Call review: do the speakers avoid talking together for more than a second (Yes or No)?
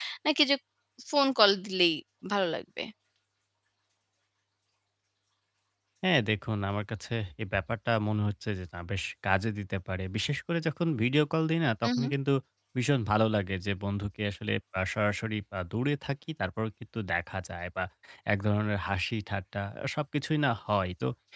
Yes